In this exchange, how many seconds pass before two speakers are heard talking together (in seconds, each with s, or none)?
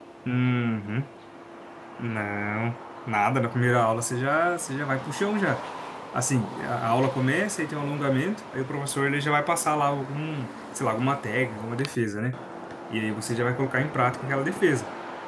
none